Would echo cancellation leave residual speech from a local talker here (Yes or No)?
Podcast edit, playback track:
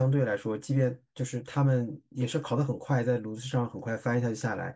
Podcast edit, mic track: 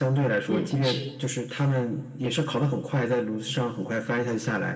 Yes